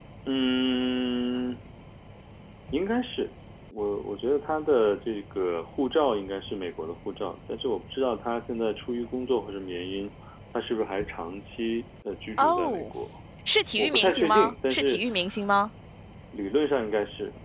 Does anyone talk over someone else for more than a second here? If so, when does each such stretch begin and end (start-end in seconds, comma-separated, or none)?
13.8-15.0